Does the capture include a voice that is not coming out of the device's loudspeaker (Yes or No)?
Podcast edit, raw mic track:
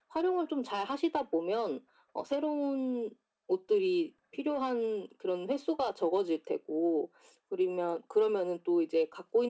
No